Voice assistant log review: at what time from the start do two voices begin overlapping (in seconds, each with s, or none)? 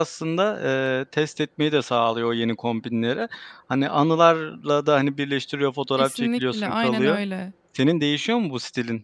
6.0 s